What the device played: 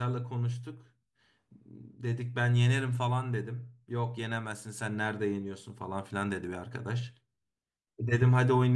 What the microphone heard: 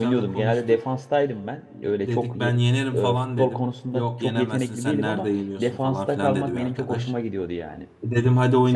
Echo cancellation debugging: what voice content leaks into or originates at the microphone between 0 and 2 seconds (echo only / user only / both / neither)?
both